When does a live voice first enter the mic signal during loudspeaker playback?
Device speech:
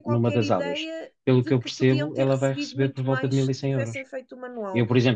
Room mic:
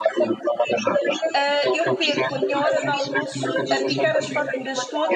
1.3 s

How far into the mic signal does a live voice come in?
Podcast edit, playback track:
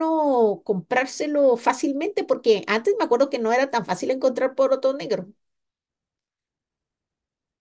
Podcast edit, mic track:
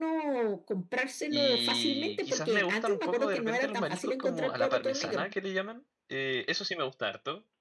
1.3 s

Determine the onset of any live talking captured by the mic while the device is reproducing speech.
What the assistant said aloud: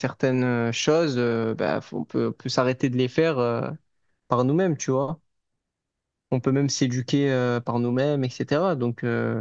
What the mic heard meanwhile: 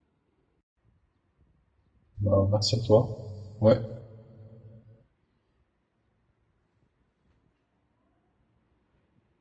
2.2 s

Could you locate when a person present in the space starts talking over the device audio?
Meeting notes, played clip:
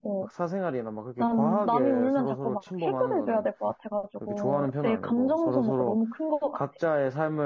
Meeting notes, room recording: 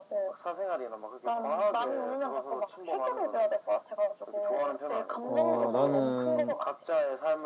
5.2 s

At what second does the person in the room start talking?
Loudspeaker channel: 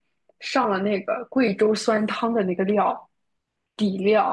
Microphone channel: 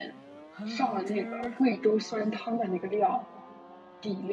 0.5 s

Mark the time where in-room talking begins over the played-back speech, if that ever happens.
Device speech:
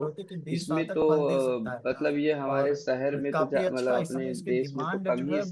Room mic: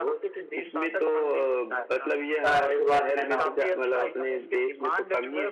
2.4 s

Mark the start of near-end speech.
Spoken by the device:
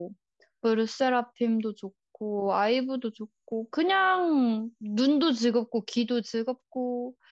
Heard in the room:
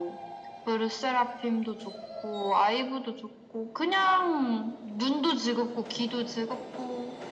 none

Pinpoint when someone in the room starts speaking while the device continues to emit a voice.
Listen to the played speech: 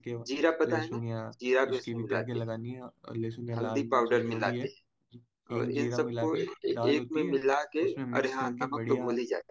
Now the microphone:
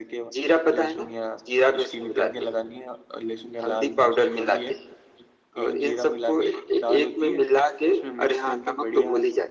none

